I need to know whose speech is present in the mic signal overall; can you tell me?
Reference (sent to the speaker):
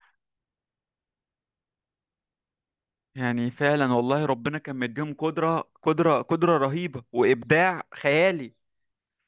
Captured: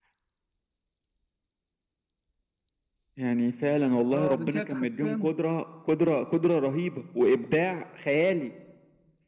both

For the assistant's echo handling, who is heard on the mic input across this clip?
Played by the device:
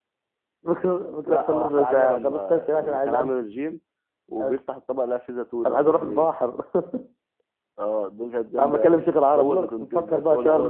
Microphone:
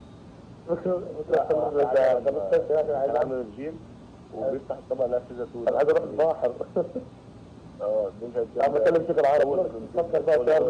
echo only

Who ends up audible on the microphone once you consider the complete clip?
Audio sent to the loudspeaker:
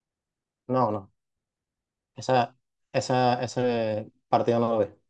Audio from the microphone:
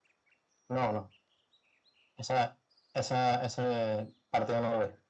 echo only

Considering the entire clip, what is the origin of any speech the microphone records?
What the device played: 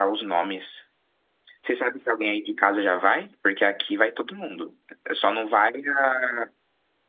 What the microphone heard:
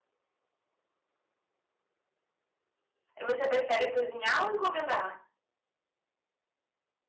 user only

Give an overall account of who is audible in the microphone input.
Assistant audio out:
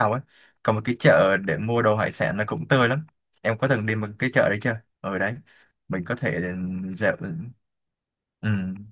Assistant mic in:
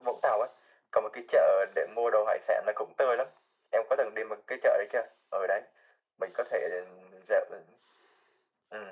echo only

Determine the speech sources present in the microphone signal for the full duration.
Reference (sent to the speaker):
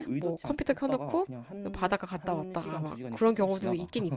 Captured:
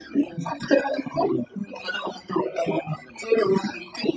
echo only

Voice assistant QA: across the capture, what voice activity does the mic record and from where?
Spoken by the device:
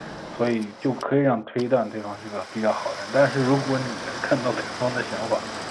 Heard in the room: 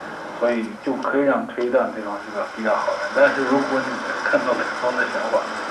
echo only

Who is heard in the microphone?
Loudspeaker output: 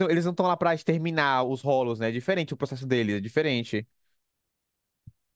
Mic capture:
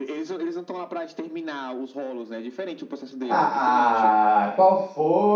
both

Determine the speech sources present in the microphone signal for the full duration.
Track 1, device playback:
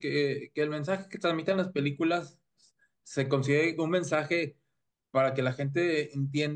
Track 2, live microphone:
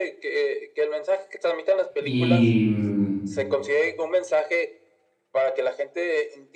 both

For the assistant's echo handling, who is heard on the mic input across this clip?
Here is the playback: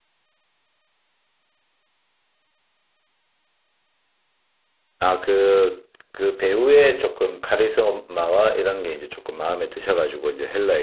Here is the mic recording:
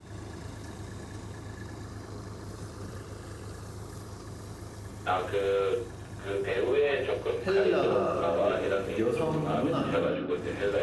both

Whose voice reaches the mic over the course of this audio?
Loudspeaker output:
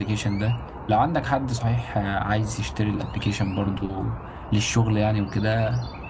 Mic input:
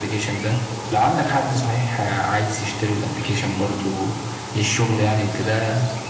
echo only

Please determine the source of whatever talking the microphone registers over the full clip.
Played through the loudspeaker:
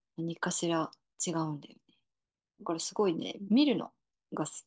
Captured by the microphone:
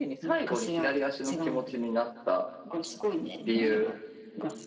both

